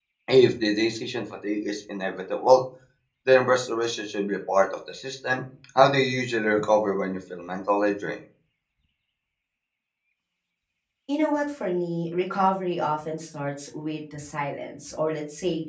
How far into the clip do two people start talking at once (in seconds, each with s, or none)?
none